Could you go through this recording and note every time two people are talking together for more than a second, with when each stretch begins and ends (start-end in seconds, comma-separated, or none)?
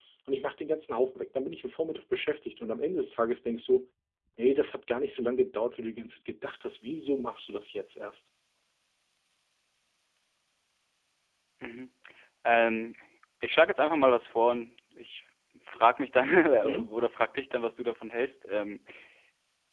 none